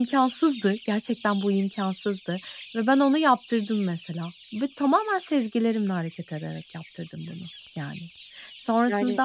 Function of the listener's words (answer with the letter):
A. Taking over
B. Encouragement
B